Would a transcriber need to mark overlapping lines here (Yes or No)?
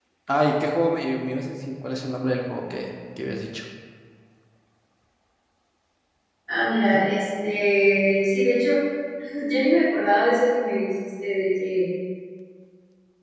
No